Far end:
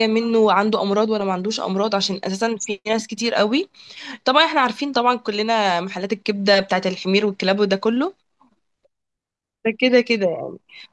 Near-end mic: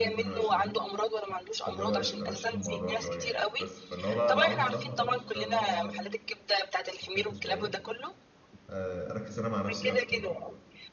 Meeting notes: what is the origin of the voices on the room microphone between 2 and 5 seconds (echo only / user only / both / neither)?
both